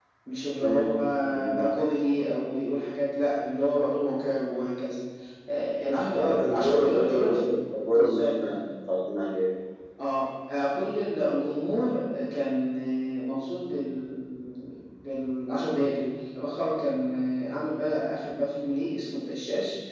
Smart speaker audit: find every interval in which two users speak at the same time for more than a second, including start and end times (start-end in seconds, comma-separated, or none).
6.2-7.4